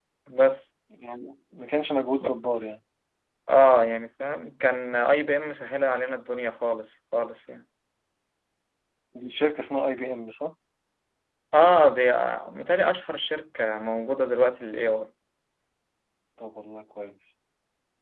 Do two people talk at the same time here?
No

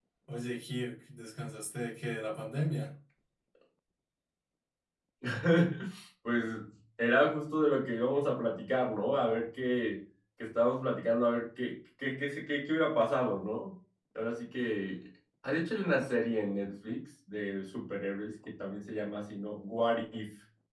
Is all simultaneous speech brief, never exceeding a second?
Yes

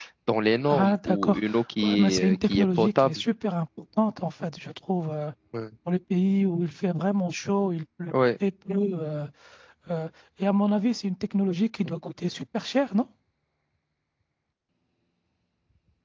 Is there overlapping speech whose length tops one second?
Yes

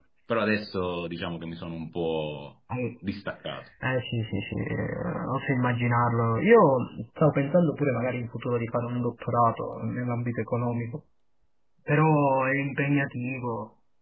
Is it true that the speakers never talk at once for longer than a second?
Yes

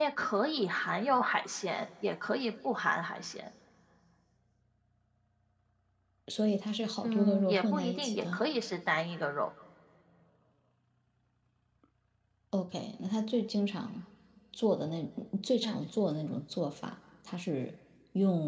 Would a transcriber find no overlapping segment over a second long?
No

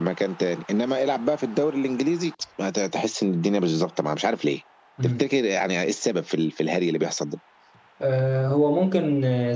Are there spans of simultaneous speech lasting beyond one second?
No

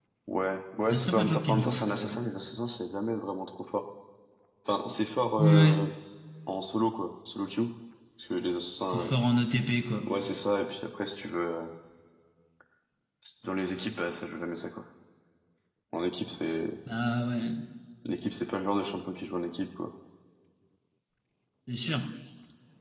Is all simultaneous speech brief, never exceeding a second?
No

